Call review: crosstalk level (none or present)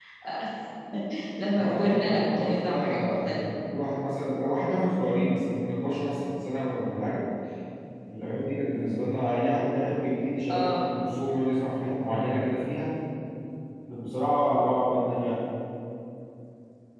present